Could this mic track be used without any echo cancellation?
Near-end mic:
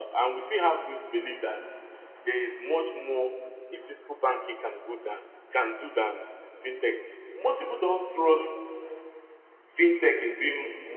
No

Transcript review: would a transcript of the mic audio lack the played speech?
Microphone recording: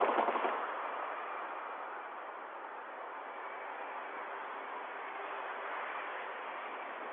Yes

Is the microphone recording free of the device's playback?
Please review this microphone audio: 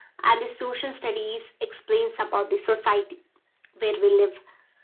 No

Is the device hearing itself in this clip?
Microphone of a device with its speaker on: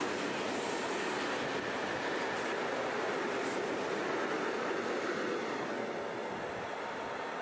No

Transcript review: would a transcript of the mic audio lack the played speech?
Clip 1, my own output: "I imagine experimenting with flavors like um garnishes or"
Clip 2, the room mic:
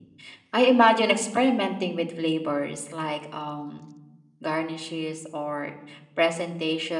No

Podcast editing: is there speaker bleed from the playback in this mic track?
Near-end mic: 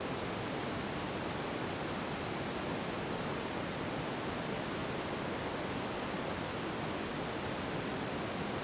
No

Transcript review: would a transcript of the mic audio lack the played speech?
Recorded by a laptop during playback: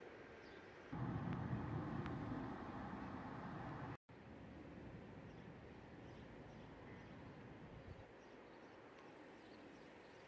Yes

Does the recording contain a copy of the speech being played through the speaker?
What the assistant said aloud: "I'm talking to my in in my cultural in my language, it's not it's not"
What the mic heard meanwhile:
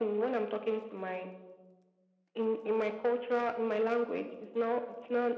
Yes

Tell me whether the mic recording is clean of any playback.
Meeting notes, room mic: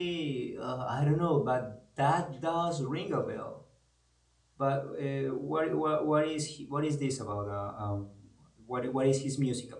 Yes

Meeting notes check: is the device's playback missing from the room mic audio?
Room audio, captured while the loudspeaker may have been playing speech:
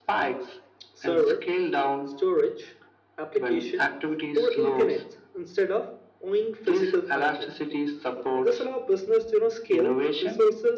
No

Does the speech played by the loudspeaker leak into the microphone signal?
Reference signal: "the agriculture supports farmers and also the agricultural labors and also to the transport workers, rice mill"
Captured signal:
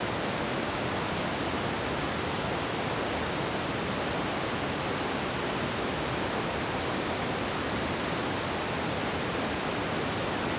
No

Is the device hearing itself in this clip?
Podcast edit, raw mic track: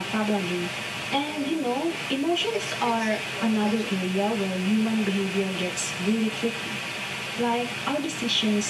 Yes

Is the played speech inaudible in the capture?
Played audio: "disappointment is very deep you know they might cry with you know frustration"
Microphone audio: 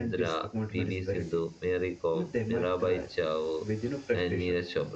No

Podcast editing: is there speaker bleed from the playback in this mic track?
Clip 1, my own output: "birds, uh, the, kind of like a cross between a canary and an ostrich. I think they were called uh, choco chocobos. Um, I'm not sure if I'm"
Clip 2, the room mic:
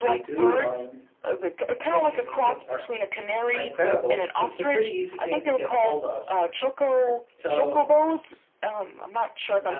Yes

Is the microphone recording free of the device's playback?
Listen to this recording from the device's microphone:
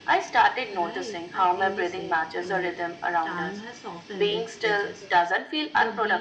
No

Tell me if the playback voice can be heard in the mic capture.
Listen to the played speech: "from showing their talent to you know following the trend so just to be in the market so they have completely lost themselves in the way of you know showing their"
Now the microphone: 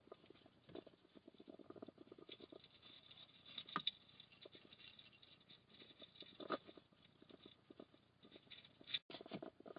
No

